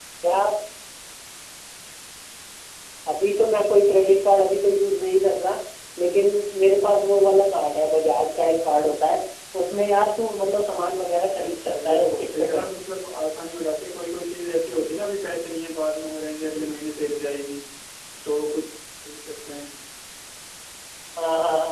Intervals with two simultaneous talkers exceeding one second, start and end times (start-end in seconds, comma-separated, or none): 11.4-12.6